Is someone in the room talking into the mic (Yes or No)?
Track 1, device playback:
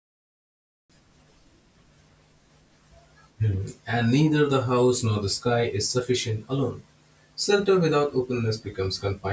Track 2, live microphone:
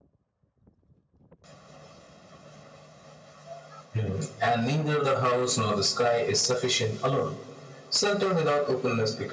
No